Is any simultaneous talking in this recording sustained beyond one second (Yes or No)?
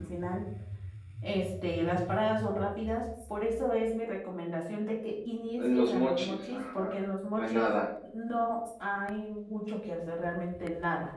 Yes